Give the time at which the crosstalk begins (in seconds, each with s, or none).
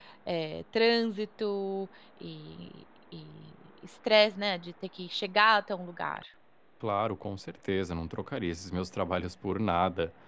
none